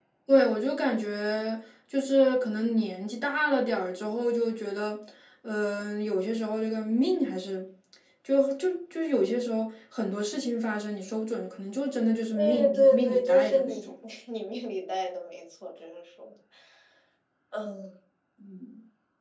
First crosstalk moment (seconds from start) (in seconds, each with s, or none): 12.3 s